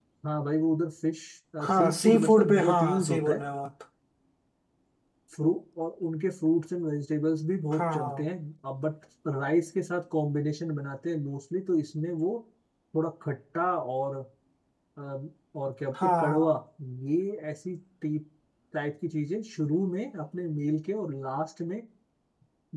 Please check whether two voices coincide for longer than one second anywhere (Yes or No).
Yes